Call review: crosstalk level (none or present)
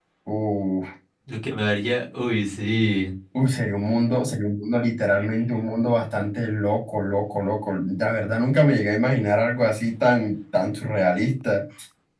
none